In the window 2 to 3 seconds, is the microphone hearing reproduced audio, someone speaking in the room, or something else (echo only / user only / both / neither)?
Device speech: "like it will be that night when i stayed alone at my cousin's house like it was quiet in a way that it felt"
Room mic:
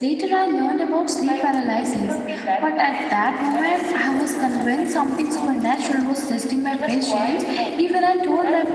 both